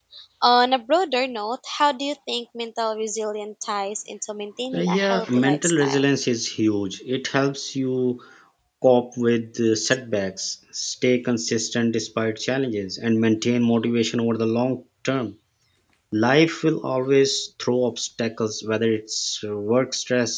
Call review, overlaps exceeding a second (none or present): present